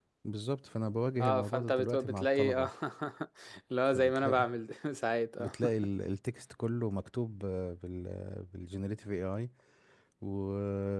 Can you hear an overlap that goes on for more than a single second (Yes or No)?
Yes